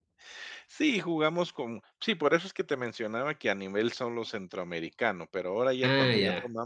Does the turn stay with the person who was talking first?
Yes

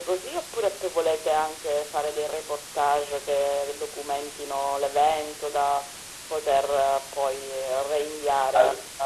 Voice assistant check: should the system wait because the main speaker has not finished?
Yes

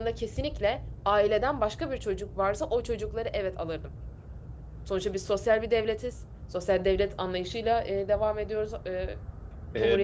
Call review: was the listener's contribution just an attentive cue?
No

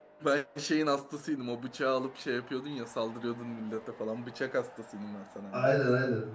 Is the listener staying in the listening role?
No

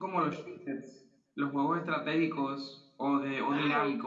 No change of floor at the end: No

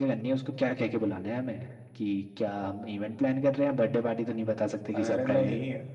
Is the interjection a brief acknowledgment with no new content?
No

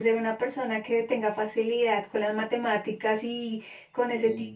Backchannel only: Yes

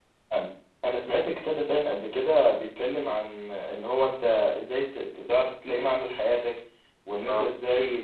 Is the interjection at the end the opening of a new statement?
No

